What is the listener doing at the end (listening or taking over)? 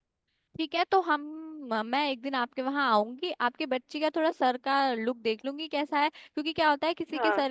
listening